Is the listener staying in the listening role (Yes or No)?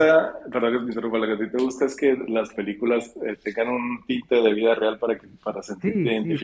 No